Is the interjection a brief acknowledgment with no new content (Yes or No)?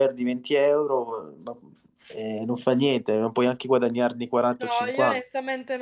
No